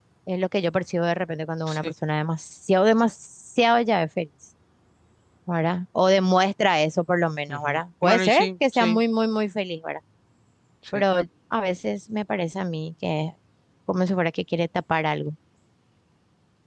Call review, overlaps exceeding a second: present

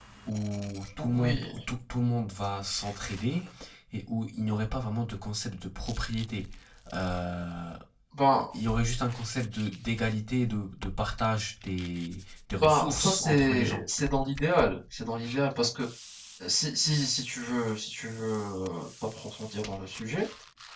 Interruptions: present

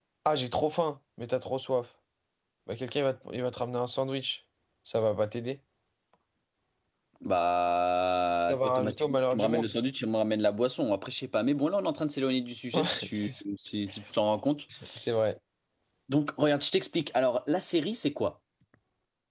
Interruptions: present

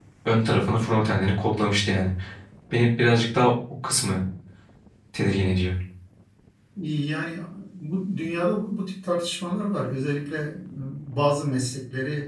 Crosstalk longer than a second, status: none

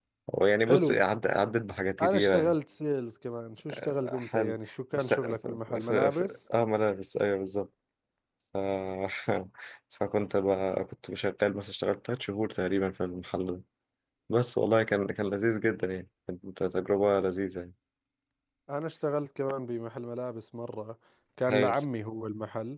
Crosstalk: present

